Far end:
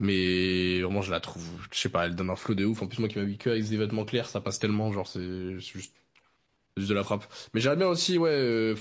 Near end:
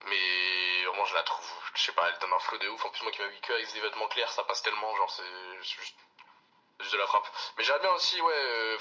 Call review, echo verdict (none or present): present